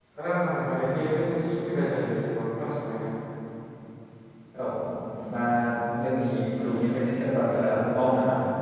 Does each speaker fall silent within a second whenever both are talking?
Yes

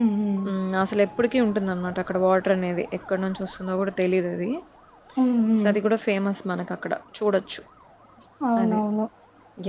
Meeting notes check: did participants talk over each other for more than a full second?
No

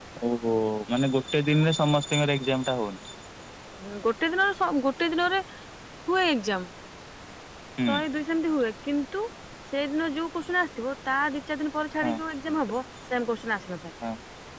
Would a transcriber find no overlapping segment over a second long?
Yes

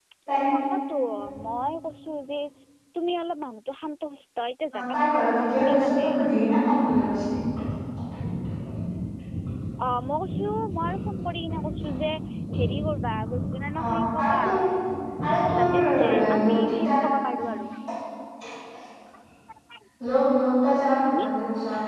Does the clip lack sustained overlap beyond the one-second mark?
No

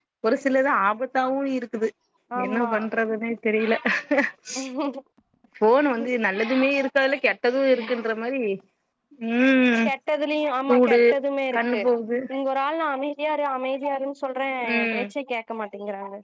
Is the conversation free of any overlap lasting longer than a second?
Yes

